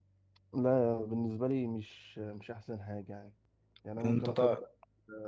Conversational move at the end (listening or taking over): listening